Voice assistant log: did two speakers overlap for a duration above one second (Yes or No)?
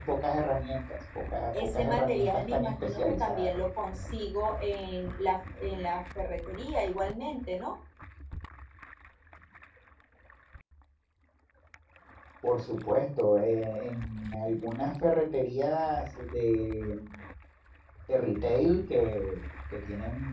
Yes